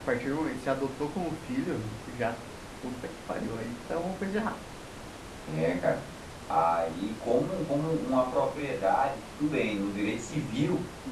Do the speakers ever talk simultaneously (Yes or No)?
No